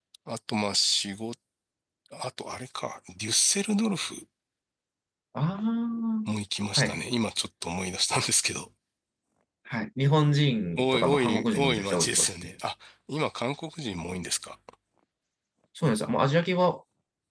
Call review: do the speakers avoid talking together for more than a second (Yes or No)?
No